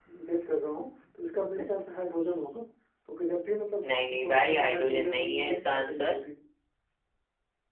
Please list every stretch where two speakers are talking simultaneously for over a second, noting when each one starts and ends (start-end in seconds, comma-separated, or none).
3.9-6.2